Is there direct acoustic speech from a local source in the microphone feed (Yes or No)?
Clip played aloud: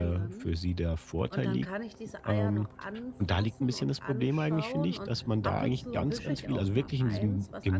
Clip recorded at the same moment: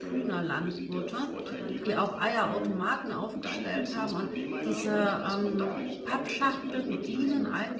Yes